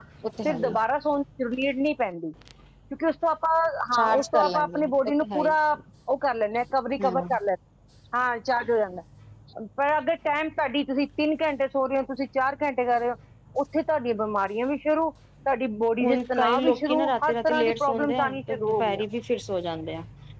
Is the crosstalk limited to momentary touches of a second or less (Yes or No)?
No